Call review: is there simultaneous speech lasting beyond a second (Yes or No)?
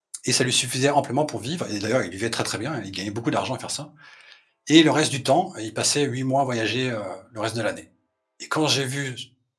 No